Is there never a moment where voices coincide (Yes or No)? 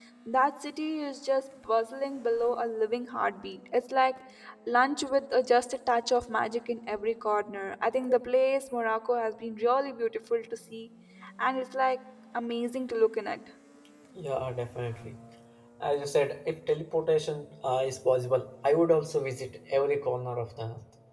Yes